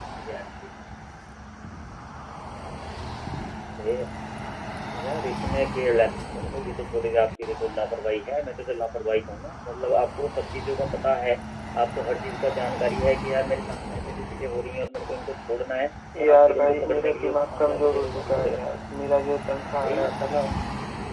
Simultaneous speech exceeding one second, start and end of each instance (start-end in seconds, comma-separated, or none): 16.2-18.7